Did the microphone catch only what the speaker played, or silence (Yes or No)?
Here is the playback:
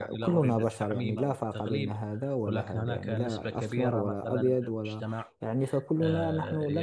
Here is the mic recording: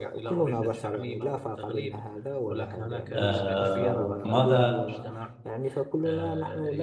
No